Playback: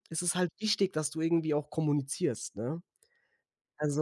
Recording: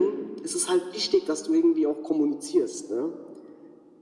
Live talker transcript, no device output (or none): none